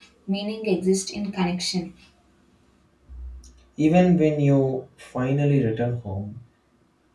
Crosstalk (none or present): none